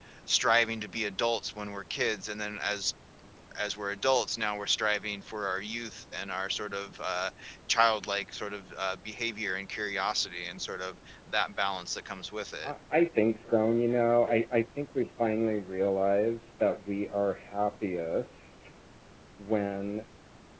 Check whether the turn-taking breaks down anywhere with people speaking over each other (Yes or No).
No